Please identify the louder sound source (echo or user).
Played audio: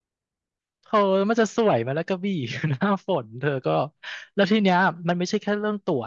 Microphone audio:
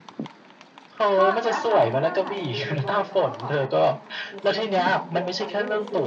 echo